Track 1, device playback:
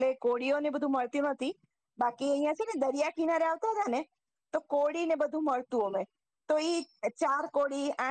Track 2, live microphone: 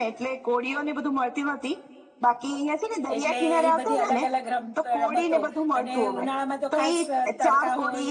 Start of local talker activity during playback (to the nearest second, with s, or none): 3 s